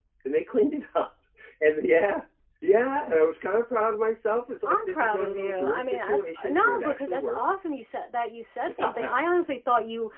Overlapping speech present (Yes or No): Yes